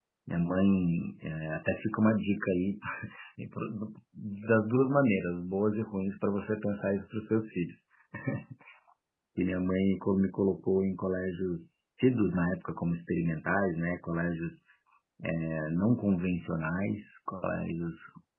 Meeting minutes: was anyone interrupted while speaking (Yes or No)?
No